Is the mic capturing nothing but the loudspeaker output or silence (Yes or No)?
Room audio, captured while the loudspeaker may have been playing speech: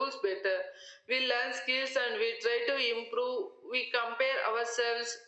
Yes